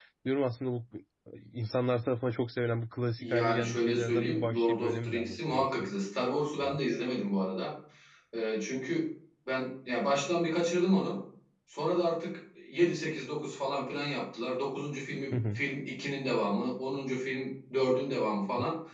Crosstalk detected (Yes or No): Yes